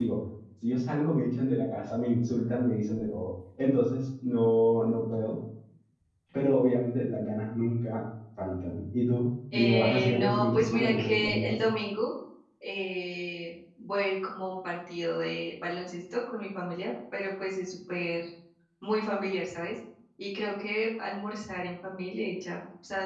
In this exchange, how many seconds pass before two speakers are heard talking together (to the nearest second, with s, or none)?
10 s